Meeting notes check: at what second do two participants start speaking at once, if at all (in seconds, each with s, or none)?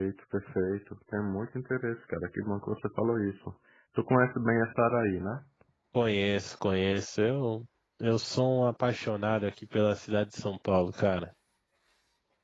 none